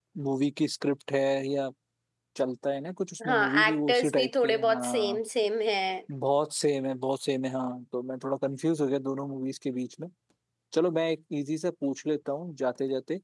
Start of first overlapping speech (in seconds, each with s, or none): 3.3 s